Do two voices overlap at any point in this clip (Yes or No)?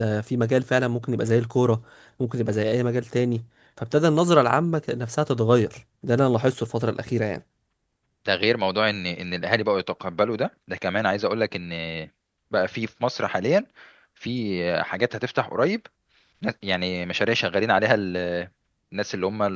No